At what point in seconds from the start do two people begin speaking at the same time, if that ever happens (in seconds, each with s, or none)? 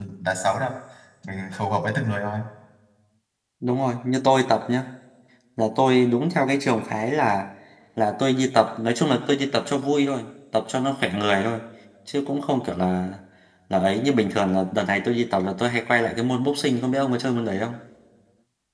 none